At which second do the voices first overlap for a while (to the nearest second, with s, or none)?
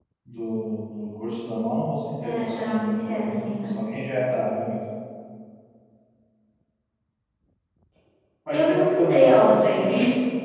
2 s